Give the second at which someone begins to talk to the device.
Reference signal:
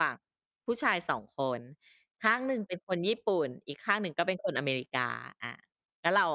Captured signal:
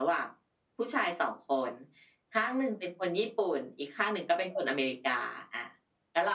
none

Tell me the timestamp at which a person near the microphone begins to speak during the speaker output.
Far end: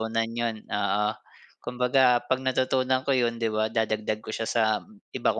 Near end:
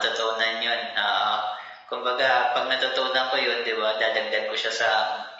none

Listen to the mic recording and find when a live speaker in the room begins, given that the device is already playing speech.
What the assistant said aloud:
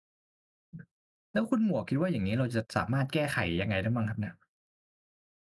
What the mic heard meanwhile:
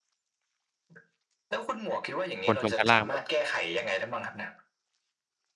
2.4 s

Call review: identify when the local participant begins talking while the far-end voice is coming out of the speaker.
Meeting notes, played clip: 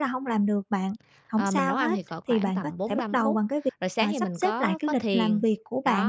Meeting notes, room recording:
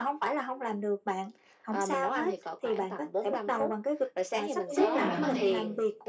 4.7 s

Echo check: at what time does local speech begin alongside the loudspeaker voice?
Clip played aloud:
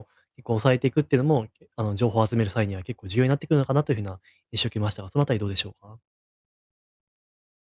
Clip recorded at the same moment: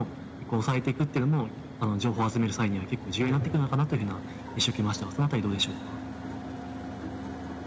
3.2 s

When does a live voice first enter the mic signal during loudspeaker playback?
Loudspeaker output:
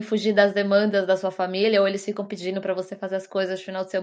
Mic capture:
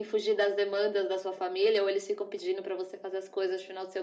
none

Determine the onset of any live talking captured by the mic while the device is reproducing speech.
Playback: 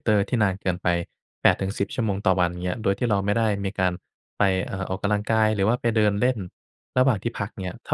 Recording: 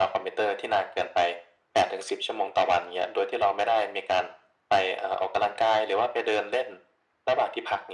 none

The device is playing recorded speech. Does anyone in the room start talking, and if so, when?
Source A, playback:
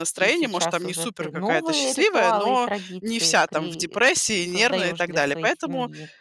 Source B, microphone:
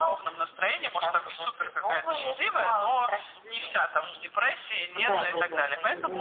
5.0 s

